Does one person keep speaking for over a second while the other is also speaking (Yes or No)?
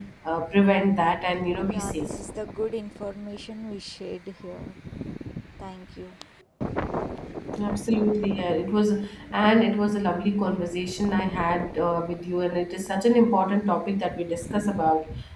No